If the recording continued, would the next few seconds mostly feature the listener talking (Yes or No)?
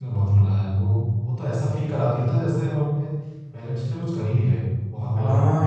Yes